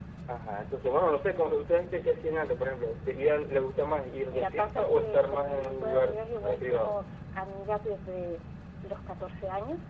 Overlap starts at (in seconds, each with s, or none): 4.3 s